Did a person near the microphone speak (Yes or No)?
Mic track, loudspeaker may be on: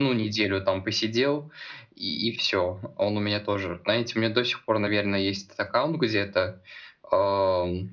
No